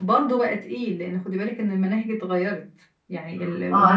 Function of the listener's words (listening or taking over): taking over